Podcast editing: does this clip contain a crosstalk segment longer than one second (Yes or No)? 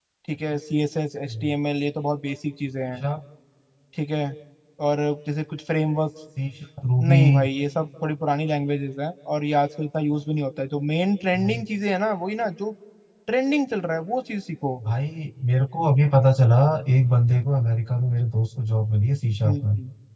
No